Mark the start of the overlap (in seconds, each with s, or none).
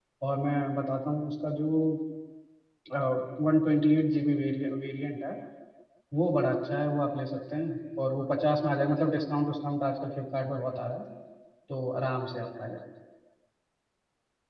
none